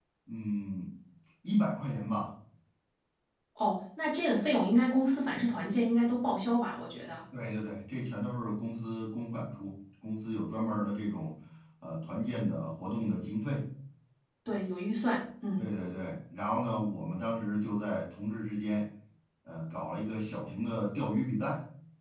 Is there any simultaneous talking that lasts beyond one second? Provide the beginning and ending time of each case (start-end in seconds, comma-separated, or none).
none